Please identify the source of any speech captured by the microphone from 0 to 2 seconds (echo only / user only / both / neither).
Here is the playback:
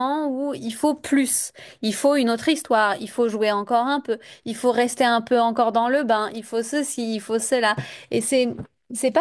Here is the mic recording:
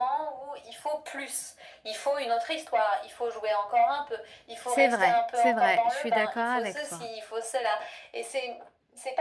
echo only